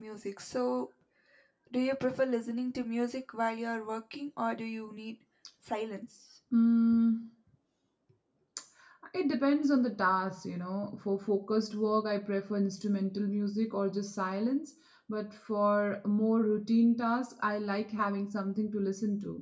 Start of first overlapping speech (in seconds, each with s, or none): none